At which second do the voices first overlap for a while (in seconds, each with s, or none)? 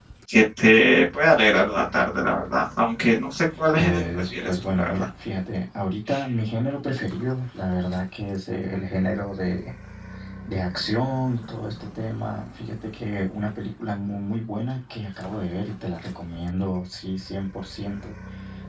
3.8 s